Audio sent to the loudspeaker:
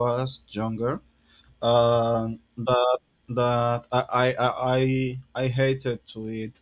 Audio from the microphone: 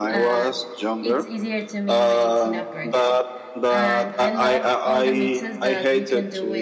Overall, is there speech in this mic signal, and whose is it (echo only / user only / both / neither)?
both